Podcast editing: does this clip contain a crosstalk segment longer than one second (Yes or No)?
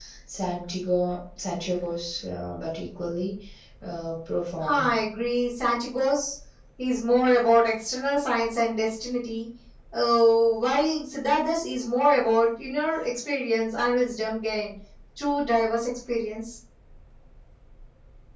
No